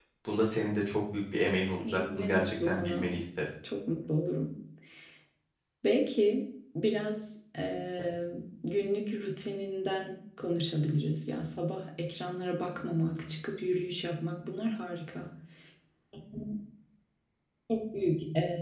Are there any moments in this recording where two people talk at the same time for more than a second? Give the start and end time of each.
1.8-3.1

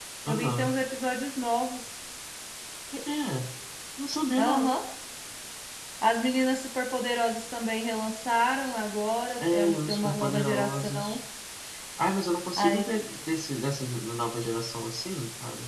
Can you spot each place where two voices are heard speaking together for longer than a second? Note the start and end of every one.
9.5-11.2

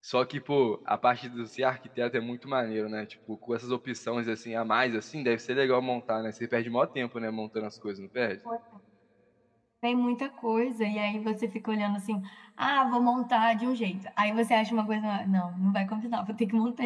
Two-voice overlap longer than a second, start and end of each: none

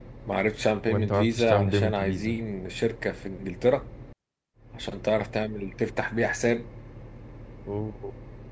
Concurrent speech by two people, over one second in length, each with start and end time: 0.9-2.4

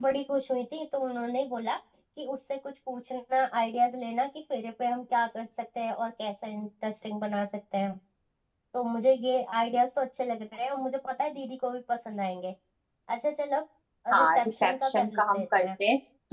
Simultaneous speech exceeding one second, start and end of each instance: 14.2-15.7

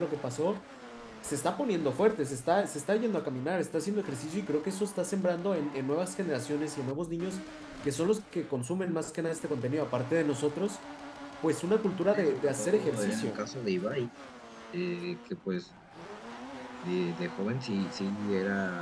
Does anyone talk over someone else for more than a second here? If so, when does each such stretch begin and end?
12.1-13.4

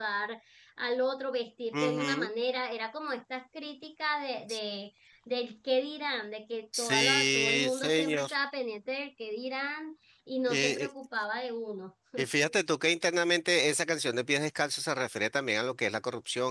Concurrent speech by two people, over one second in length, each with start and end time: 6.8-8.3

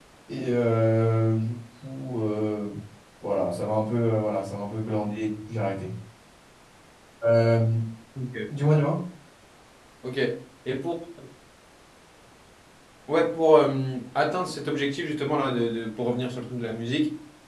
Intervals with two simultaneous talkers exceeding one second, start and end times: none

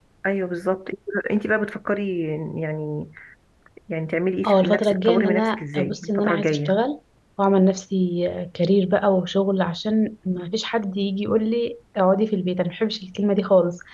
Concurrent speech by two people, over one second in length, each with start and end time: 4.5-6.8

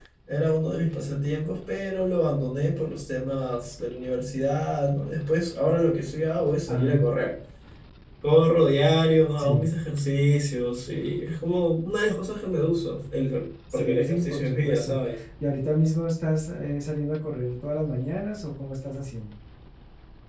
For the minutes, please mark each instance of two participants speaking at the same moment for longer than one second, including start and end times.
13.7-15.0

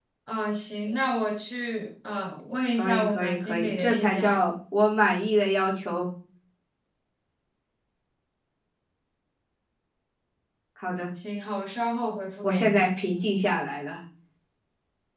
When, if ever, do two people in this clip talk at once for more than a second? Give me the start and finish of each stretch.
2.8-4.4

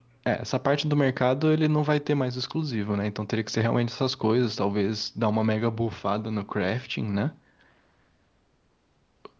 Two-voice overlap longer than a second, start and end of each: none

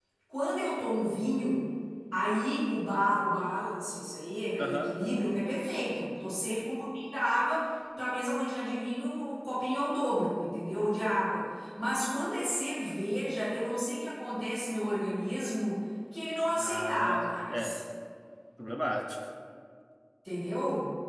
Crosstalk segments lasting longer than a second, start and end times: 16.6-17.8

